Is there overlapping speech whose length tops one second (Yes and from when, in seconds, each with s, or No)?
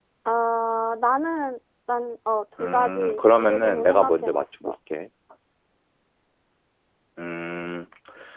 Yes, from 2.6 s